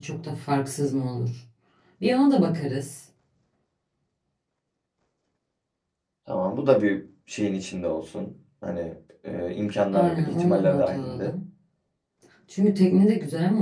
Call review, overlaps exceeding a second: present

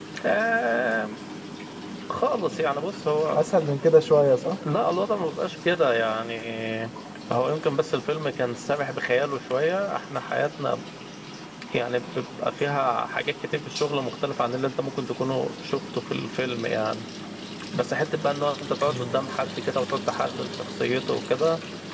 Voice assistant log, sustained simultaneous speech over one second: none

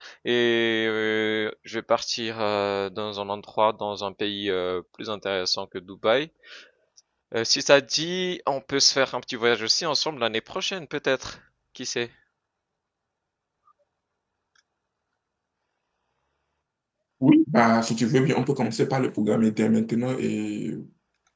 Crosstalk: none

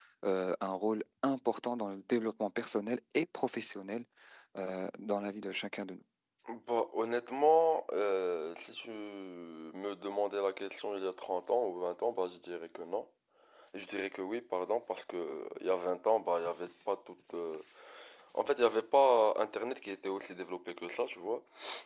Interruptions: none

